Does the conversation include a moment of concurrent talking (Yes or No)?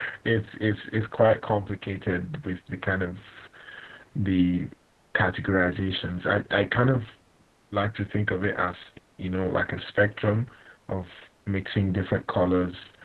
No